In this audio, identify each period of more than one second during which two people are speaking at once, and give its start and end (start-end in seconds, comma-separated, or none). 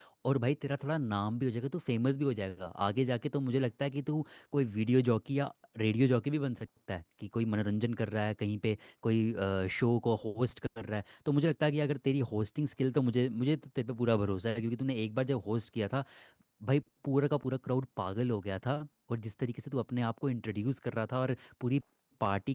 none